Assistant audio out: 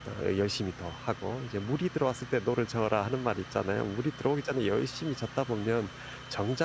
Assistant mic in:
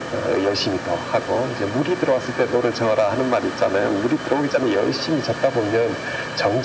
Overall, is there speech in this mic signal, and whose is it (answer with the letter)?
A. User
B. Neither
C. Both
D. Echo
D